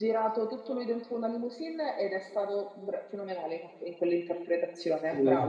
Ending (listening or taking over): taking over